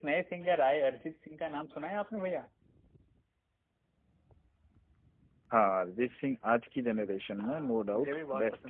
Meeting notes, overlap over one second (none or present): present